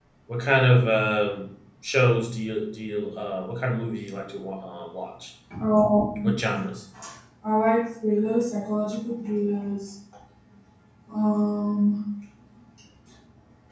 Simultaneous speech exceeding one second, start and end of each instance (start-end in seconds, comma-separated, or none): none